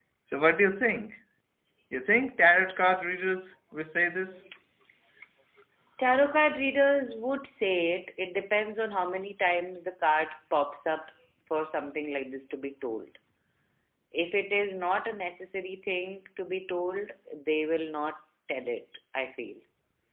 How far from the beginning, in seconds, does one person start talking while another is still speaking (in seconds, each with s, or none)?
none